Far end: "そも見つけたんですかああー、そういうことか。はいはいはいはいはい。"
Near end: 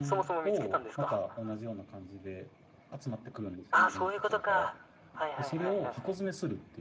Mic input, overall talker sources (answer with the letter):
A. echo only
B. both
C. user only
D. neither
B